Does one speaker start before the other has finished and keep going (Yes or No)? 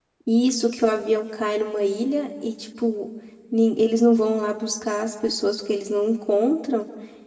No